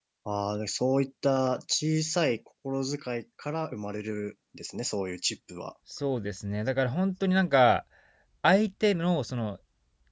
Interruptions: none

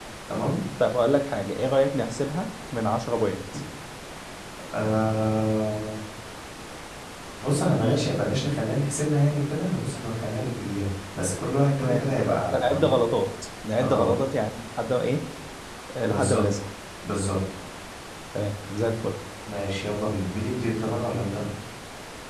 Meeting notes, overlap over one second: none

